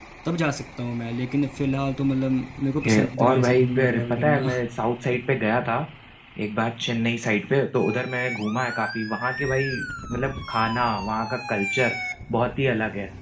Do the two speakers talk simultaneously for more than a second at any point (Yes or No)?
Yes